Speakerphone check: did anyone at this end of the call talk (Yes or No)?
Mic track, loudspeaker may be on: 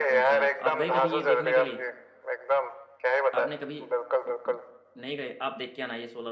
Yes